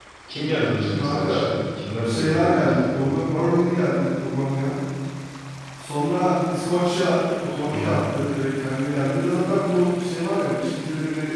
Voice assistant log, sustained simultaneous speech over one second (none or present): present